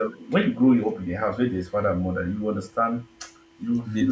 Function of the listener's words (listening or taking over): listening